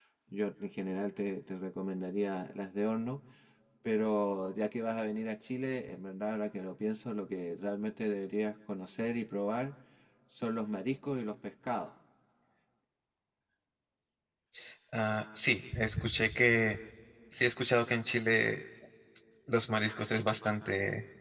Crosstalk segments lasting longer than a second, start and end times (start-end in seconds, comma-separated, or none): none